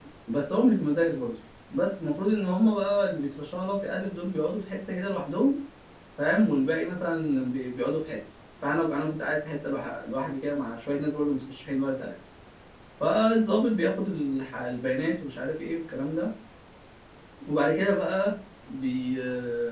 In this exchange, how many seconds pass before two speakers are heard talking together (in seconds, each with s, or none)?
none